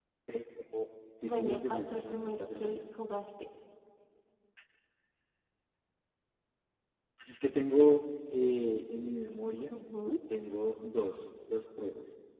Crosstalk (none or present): present